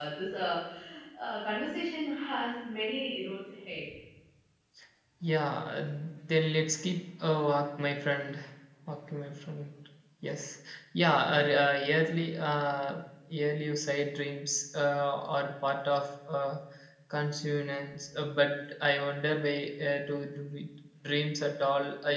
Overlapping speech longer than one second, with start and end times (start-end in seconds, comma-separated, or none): none